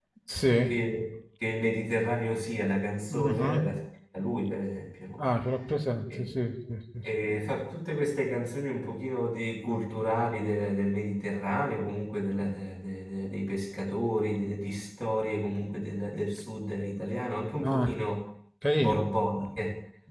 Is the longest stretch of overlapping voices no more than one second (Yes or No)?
Yes